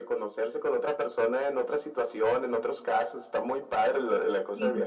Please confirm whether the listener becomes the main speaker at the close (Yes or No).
Yes